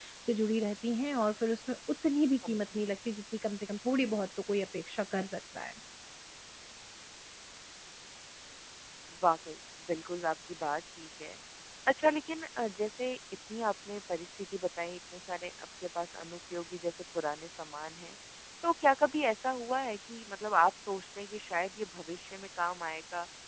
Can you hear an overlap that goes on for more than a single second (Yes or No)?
No